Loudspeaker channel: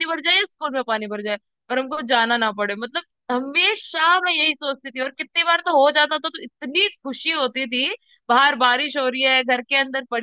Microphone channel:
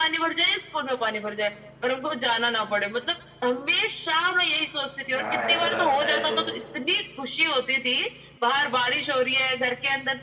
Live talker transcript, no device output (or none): हाँ ऐसा लगता है तो